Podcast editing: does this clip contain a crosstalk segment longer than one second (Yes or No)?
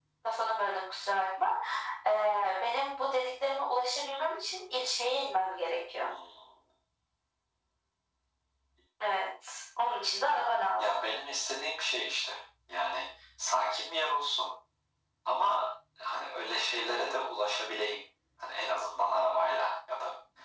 No